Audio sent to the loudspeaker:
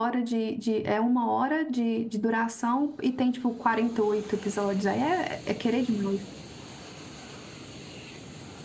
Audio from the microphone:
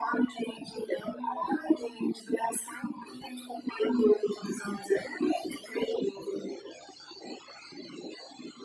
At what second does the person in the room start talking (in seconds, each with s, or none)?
none